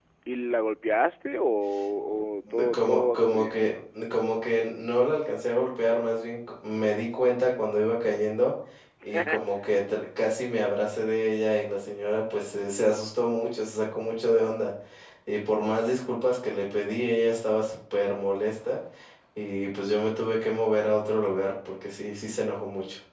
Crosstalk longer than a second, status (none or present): present